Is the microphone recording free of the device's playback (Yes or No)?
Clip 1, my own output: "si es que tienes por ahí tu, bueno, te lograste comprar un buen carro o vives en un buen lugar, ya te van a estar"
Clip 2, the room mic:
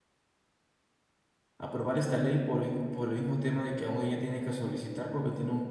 Yes